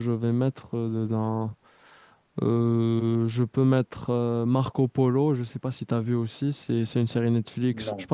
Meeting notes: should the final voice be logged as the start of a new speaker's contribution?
No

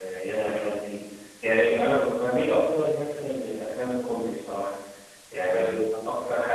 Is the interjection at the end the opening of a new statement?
No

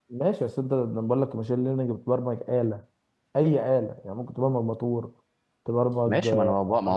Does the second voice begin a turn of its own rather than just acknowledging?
Yes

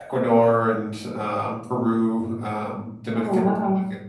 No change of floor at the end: Yes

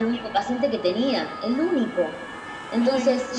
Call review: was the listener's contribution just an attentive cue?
Yes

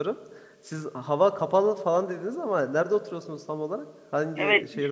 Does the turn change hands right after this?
Yes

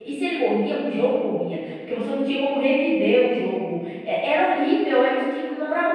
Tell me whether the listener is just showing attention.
No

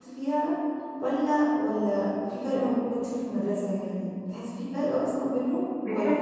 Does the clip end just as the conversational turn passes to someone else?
Yes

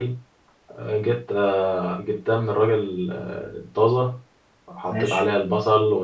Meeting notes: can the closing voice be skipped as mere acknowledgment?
Yes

